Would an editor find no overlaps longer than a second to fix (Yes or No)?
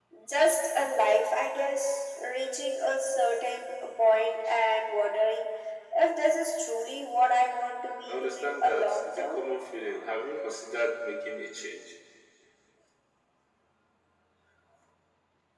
No